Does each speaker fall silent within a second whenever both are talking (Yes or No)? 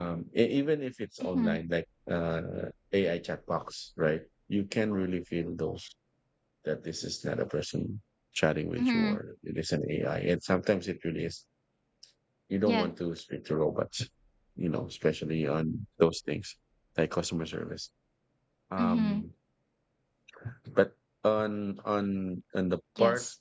Yes